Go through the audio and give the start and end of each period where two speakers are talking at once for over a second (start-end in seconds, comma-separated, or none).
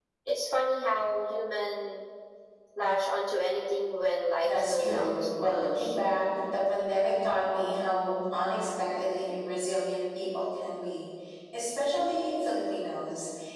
4.4-5.9